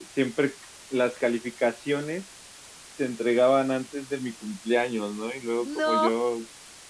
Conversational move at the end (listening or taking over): listening